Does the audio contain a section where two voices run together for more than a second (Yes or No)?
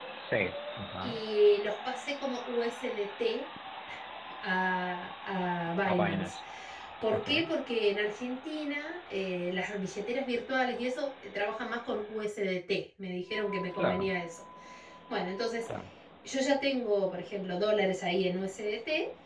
No